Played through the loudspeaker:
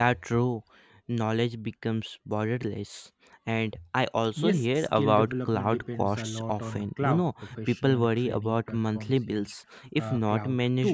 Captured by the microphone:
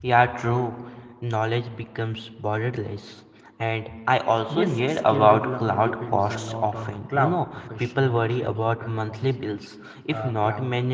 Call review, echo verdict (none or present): present